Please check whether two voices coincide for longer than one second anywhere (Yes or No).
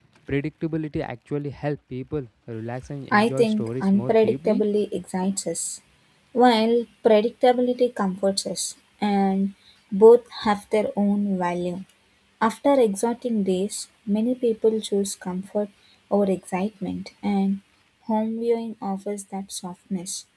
Yes